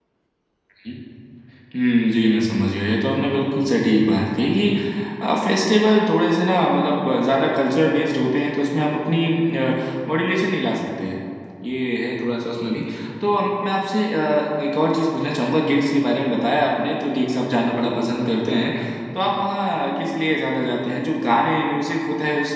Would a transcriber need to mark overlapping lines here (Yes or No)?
No